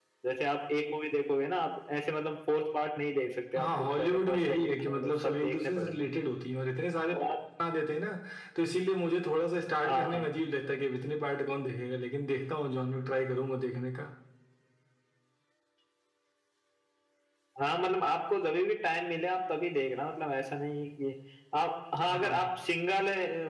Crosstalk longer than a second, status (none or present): present